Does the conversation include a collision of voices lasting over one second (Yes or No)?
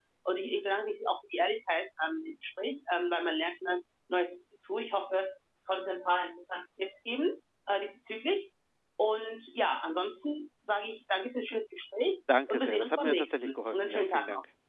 Yes